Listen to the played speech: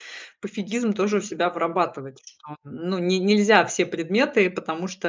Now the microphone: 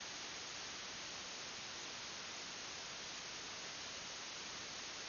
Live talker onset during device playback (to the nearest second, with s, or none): none